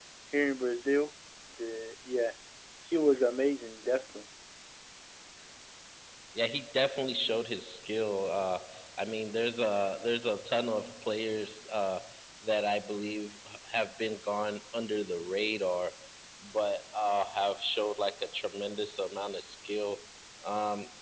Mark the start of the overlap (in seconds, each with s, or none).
none